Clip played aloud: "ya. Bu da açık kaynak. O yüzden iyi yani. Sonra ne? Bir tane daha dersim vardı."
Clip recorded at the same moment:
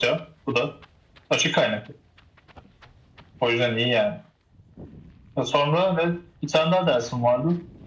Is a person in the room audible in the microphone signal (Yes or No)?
No